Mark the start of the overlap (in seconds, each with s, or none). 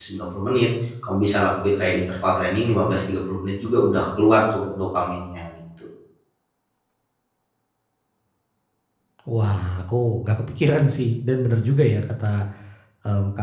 none